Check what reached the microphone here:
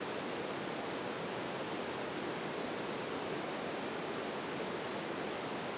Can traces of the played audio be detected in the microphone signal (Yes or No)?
No